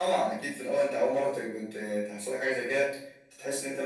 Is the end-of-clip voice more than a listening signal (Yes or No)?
No